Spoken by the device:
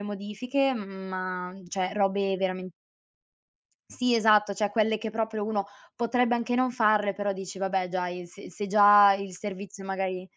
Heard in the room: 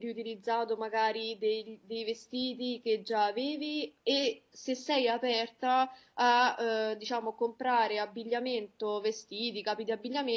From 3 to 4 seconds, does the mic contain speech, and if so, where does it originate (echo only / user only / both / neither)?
user only